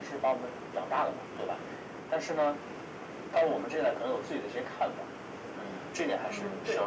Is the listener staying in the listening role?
No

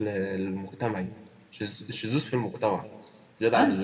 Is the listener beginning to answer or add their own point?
Yes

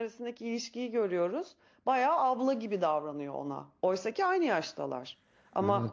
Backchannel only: Yes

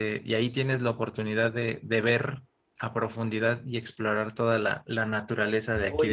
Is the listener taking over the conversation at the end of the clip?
Yes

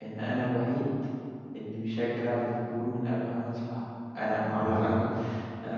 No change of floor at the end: Yes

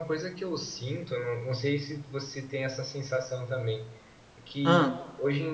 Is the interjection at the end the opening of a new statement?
No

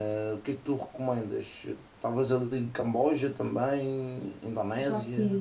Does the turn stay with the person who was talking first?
No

